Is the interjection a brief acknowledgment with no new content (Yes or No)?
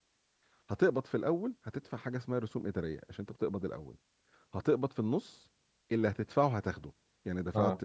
Yes